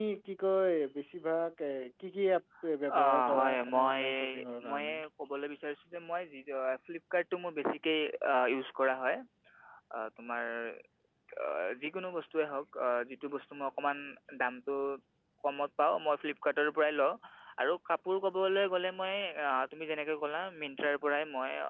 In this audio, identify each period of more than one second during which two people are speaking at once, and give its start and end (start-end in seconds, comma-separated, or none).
3.0-4.3